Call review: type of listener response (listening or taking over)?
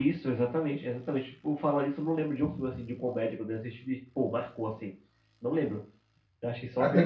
taking over